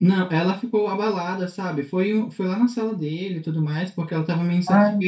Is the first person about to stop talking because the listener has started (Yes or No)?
No